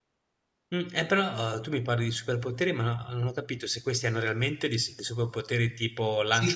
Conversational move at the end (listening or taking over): taking over